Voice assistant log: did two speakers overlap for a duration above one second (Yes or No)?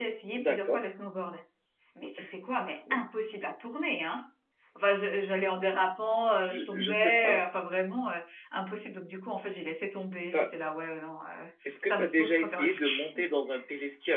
Yes